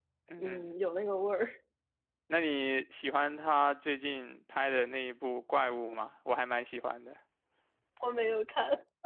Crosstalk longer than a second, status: none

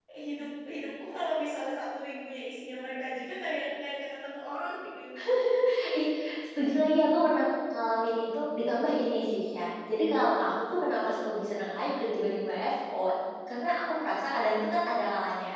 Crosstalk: none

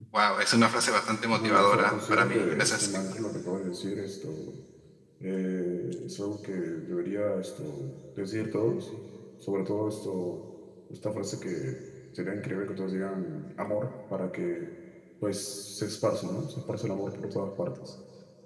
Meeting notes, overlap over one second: present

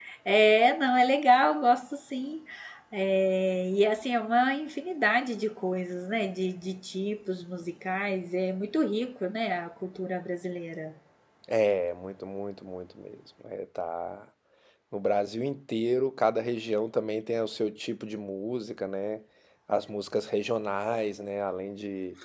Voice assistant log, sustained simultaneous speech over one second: none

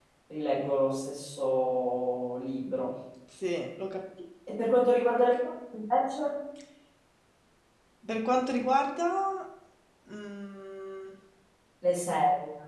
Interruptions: none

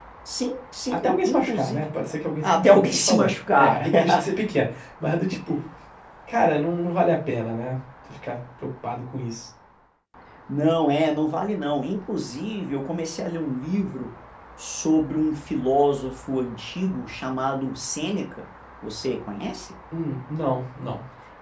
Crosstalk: present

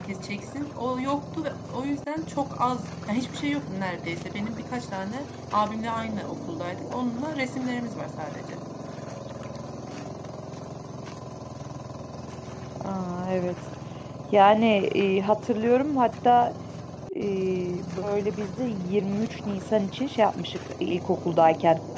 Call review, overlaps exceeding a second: none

